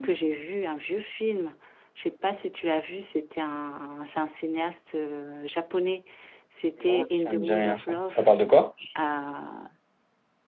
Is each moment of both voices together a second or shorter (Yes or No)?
No